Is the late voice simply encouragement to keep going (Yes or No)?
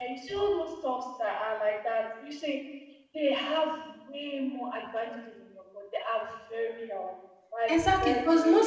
No